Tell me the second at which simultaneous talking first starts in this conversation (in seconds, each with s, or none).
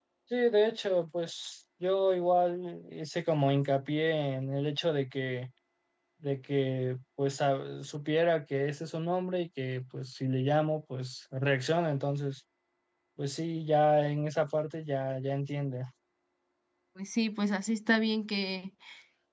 none